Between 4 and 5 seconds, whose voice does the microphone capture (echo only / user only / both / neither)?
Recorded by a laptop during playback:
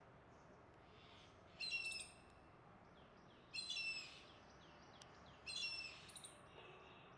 neither